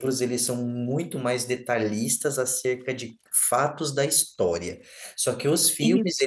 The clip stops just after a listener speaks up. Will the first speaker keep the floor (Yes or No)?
Yes